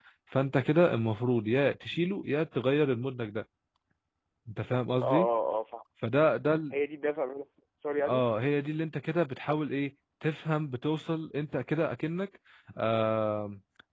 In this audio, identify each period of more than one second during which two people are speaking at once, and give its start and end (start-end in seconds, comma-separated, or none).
none